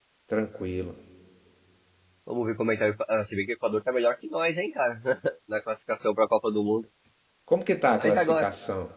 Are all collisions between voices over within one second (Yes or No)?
Yes